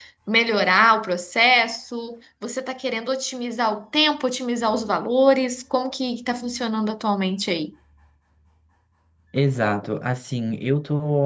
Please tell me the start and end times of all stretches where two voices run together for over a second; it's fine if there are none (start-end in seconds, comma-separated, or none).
none